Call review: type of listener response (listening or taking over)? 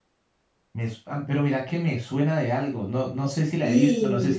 listening